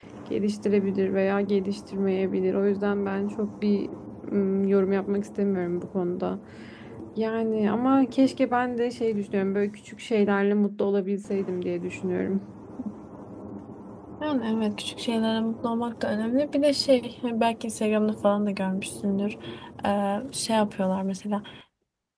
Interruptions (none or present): none